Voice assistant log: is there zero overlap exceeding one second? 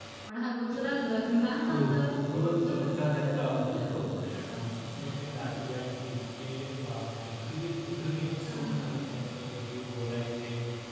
No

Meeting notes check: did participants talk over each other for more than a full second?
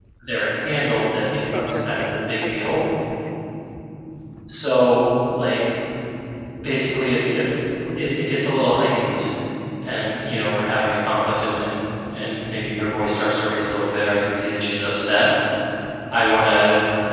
Yes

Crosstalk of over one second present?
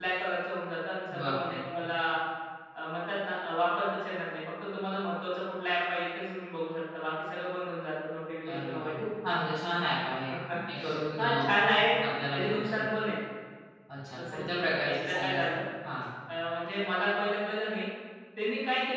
Yes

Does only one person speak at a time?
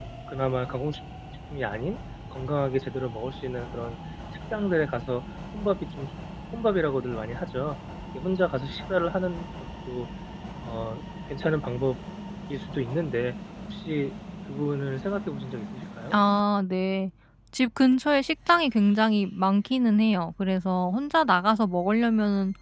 Yes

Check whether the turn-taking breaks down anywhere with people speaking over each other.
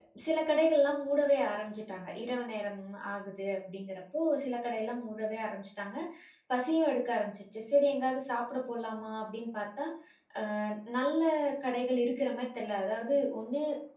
No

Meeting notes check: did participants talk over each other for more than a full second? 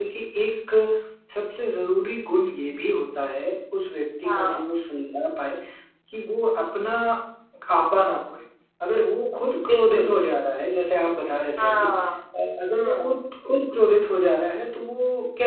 No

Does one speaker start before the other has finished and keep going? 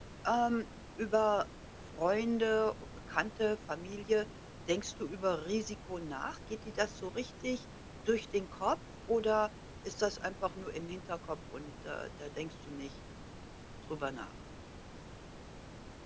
No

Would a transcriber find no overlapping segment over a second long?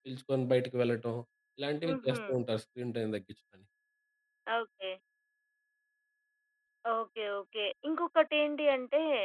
Yes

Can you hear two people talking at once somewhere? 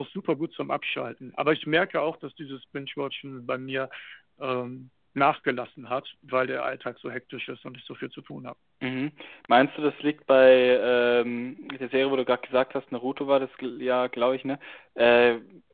No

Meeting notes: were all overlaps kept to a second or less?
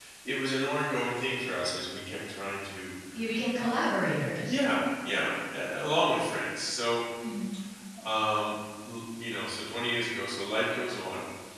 Yes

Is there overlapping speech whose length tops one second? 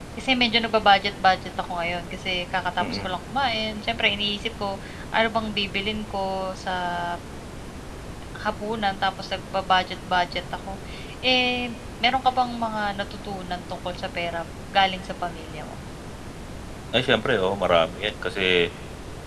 No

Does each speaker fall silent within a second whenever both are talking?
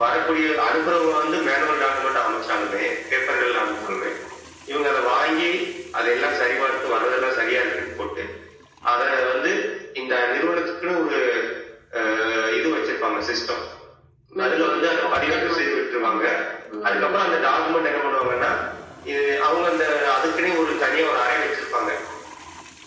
No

